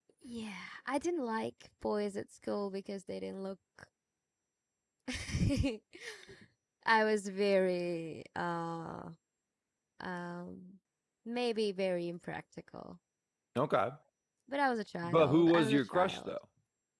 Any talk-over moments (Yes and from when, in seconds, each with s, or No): Yes, from 15.0 s